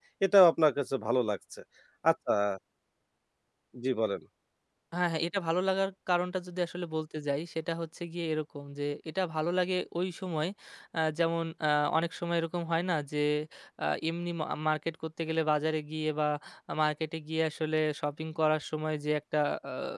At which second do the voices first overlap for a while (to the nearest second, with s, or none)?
none